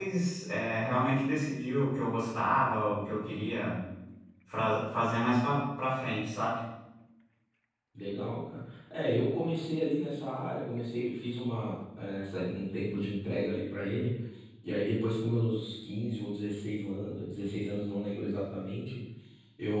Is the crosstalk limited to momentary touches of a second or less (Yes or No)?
Yes